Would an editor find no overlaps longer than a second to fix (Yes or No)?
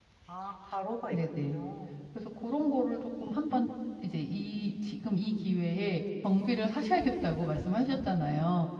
Yes